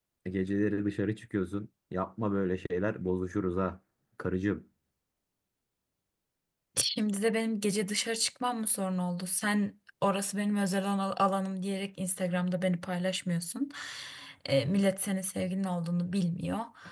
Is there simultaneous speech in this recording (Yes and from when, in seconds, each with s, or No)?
No